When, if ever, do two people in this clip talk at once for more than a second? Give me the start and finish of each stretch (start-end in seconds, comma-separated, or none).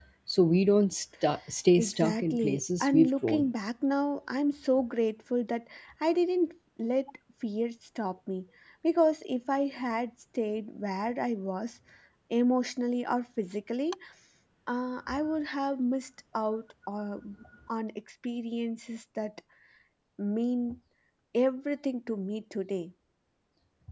1.8-3.5